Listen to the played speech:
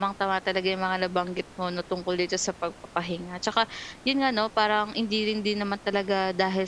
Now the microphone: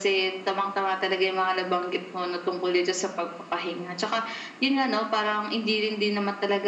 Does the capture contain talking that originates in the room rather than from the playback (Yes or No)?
No